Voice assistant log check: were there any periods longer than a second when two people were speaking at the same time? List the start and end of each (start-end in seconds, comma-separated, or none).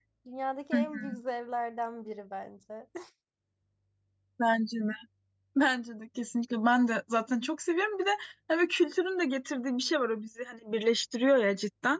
none